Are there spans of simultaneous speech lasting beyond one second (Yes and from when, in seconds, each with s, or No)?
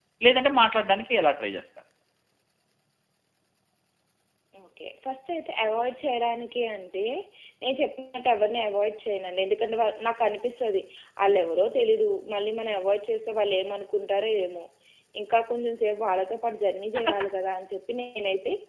No